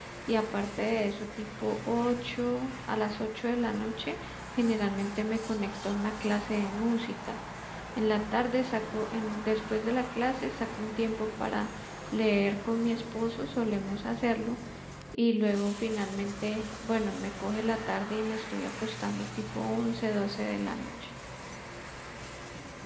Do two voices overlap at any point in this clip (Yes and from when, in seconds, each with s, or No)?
No